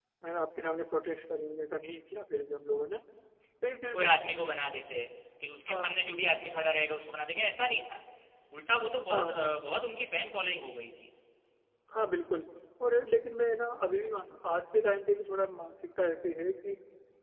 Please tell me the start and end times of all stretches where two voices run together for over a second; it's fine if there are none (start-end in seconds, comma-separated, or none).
none